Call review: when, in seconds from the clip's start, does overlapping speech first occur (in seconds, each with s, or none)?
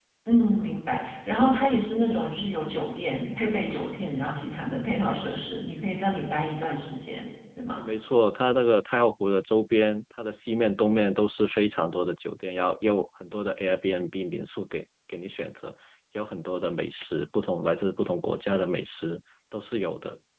none